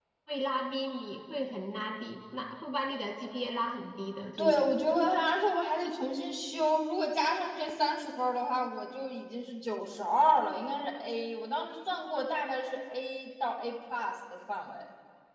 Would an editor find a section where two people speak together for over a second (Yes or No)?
No